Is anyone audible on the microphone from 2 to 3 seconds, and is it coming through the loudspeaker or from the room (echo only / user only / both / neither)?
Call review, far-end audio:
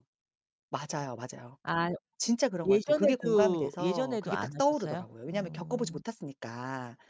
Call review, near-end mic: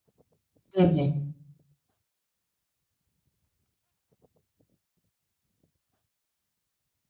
neither